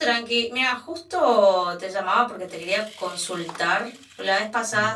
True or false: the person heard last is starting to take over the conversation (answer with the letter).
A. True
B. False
B